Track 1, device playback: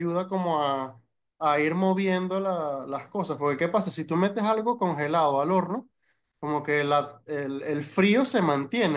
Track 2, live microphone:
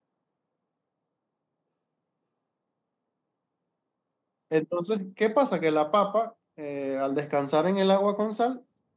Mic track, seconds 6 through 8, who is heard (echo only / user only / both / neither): user only